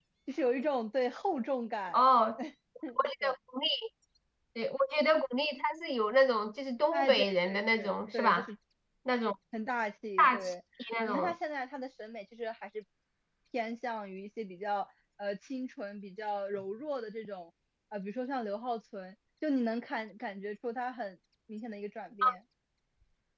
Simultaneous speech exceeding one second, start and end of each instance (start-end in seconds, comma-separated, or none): 7.1-8.5